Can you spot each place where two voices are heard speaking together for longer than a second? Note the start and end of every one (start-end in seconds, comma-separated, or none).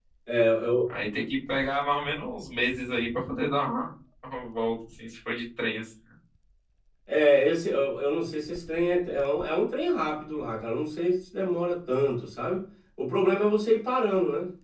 none